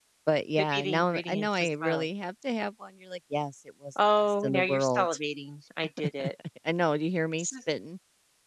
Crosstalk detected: Yes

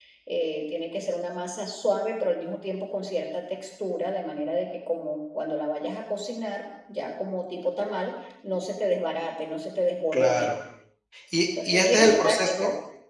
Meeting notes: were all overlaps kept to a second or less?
No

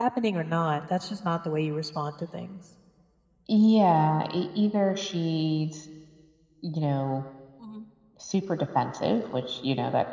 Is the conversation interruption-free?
Yes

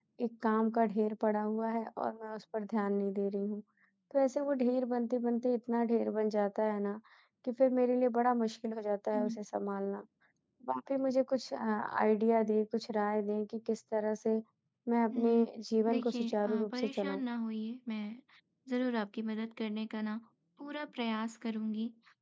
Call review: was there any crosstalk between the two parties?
Yes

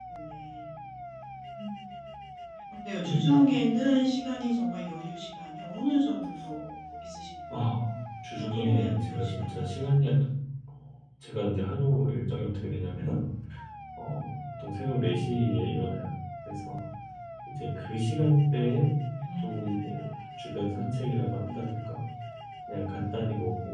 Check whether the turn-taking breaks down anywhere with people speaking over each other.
Yes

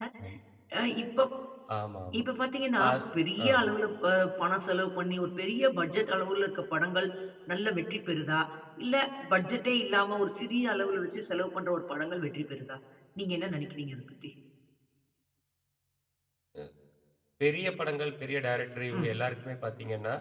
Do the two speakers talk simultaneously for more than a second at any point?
No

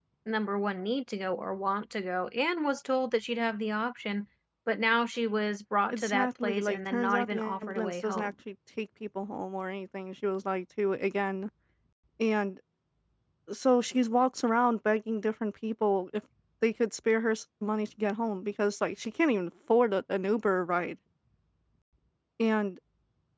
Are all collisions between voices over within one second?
No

